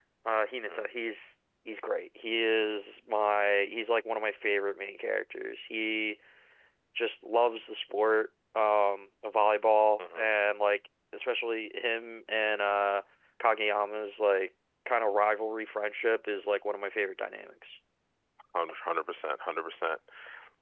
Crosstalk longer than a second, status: none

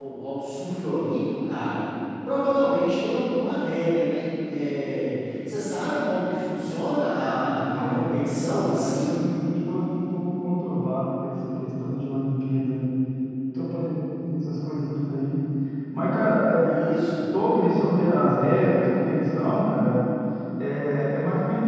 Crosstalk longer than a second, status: present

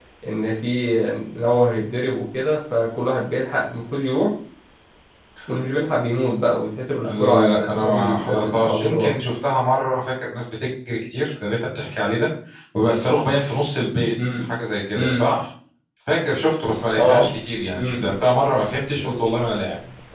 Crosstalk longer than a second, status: present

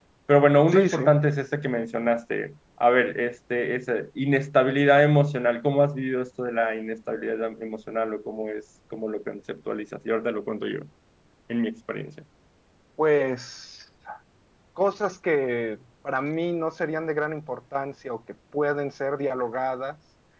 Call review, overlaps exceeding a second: none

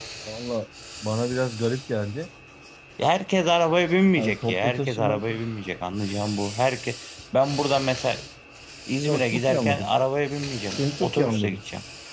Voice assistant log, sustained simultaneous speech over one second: present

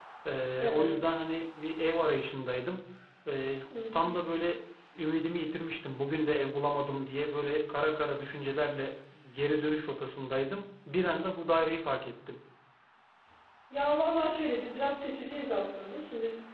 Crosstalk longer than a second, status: none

